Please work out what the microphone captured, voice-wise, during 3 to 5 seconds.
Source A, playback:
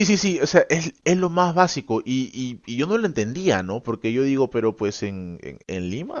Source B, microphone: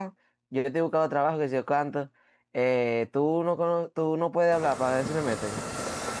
user only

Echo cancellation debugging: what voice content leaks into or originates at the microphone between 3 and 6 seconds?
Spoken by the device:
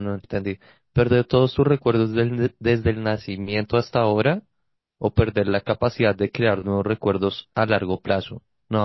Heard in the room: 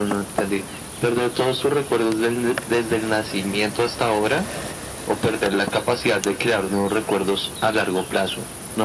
echo only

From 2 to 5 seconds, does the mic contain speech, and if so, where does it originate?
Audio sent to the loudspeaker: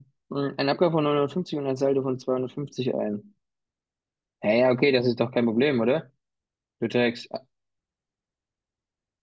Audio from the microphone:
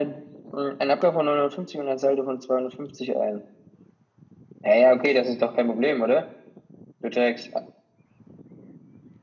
echo only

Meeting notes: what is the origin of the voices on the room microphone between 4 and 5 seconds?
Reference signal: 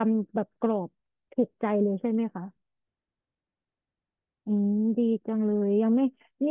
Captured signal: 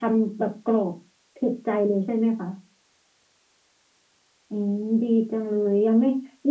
echo only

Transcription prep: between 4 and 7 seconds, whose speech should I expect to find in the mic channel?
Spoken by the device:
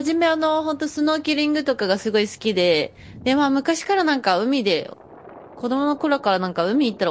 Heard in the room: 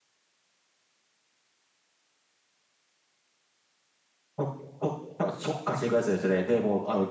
user only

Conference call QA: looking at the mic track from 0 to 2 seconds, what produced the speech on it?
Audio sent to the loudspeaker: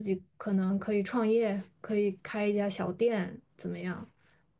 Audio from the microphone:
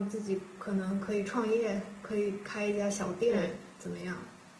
echo only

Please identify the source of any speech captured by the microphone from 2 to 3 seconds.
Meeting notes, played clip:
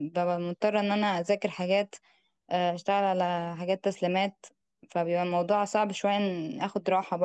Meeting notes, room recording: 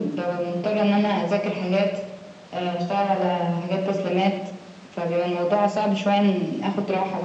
echo only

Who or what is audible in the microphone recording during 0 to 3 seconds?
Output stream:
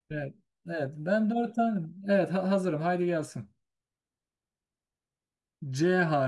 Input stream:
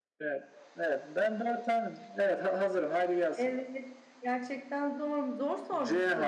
echo only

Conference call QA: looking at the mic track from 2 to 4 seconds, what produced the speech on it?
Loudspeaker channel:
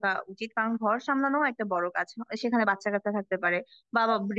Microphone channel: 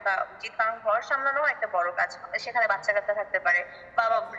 echo only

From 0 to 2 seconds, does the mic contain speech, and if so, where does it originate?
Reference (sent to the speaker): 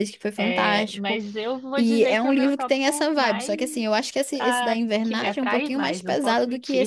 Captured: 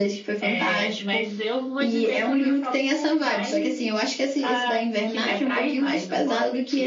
echo only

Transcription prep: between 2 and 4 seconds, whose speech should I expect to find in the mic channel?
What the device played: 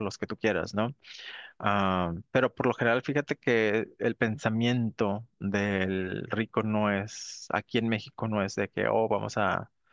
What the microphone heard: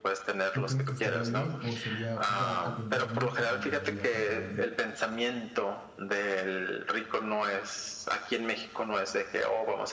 both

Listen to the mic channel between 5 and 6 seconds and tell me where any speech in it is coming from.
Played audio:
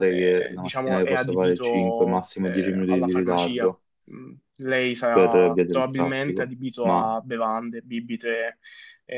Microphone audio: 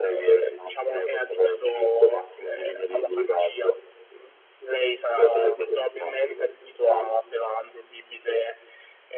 echo only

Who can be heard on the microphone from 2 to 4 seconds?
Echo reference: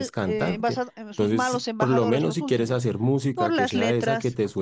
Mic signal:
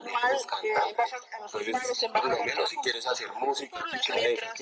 echo only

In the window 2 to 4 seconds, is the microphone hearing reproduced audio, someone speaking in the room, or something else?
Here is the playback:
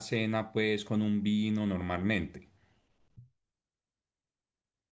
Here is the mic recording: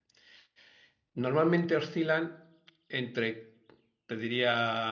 user only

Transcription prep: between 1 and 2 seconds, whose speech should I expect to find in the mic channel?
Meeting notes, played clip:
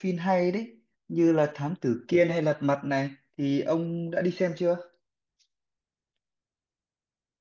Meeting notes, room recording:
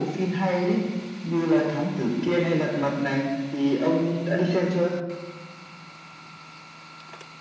echo only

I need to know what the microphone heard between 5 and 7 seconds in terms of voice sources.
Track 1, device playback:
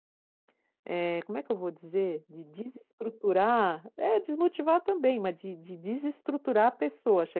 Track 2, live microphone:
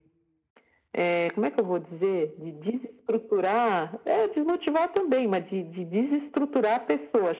echo only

